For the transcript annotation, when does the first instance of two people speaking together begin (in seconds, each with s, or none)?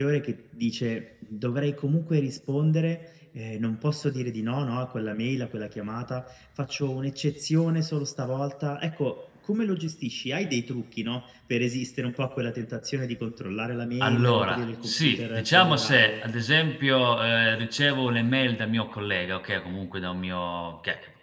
14.0 s